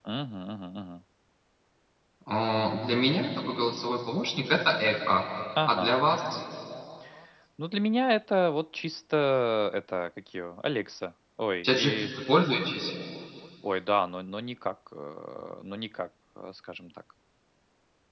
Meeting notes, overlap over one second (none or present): none